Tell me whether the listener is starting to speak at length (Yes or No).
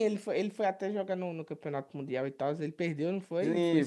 Yes